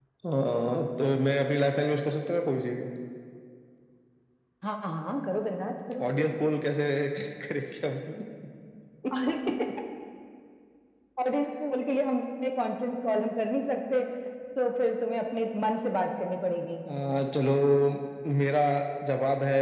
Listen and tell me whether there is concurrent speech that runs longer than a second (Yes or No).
No